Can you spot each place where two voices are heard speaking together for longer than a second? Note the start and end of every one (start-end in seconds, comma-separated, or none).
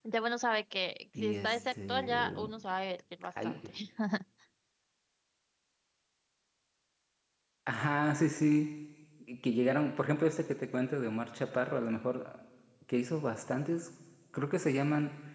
1.2-2.5